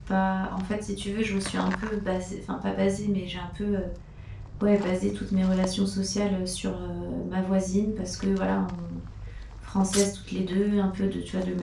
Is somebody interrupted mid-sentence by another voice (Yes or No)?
No